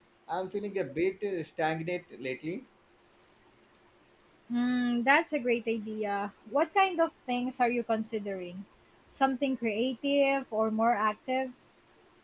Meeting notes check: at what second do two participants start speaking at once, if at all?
none

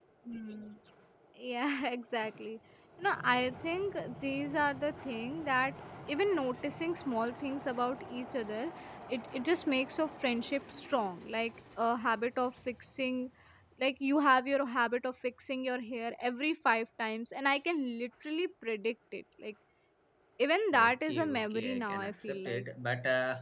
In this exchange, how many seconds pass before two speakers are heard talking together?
20.9 s

